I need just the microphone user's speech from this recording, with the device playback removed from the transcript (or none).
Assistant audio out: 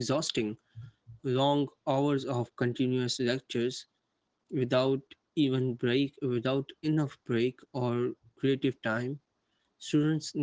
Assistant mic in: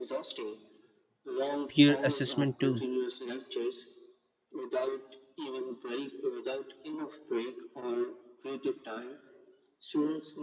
peer assessment too.